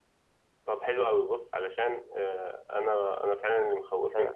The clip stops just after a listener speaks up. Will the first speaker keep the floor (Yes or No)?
Yes